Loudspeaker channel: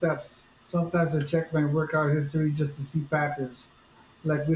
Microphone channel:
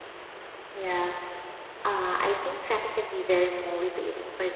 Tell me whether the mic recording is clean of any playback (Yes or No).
Yes